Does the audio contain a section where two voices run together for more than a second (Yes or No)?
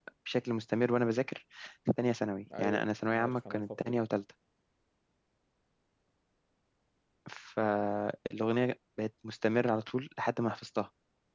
Yes